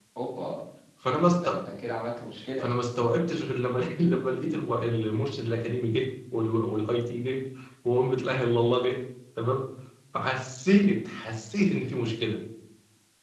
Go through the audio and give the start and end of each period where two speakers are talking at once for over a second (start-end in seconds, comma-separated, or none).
none